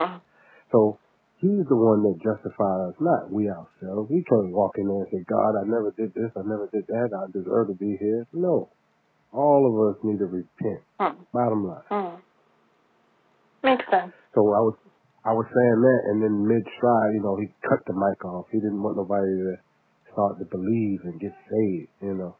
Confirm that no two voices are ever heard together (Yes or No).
Yes